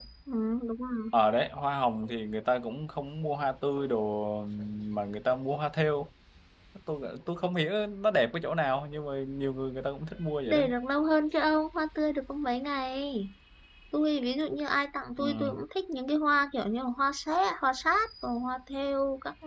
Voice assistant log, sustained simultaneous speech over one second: none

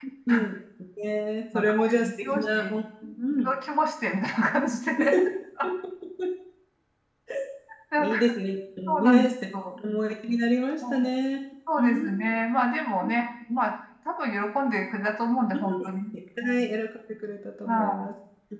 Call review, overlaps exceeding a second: present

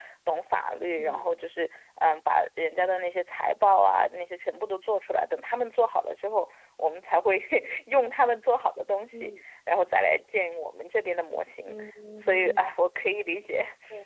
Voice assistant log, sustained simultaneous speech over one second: none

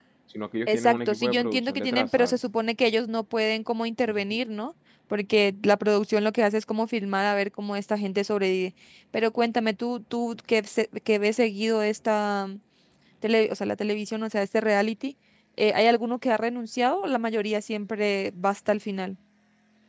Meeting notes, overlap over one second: present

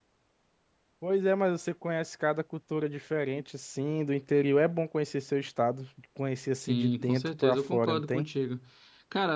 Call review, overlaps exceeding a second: present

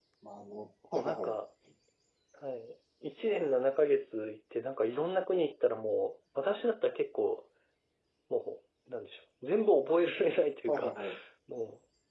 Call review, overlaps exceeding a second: none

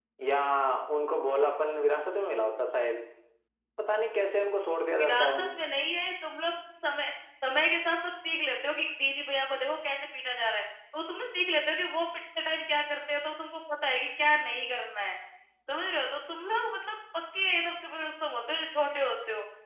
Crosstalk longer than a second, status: none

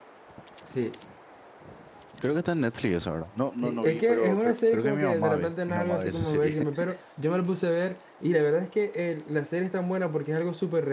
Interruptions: present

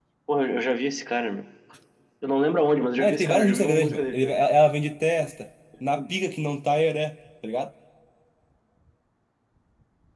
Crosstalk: present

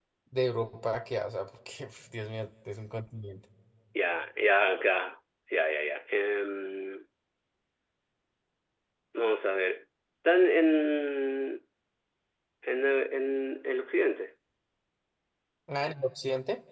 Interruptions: none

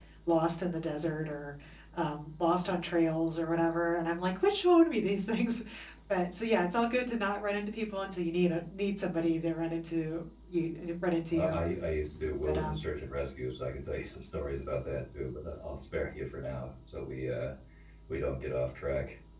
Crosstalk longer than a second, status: none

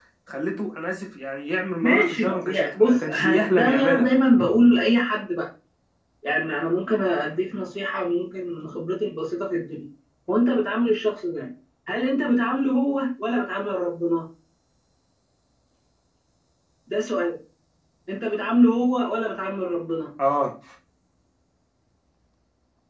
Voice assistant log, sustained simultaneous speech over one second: present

